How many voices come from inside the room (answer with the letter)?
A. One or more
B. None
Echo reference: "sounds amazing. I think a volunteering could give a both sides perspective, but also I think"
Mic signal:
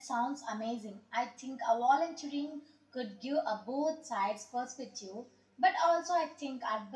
B